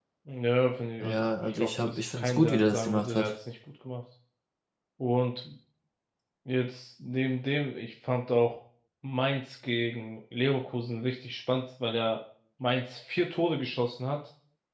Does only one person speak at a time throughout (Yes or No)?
No